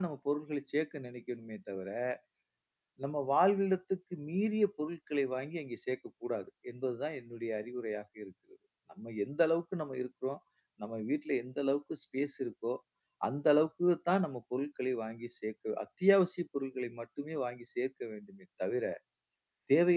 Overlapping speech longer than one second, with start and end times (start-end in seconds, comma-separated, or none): none